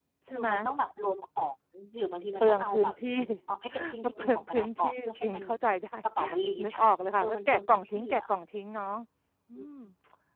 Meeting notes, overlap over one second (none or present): present